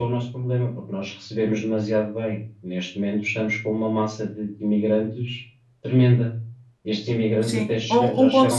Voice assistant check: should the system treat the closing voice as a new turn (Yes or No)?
Yes